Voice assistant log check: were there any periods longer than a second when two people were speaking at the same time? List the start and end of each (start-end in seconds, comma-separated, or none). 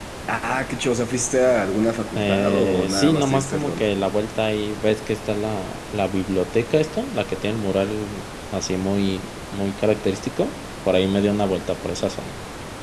2.2-3.8